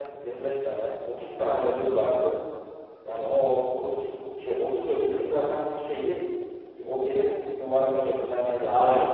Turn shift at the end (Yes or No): Yes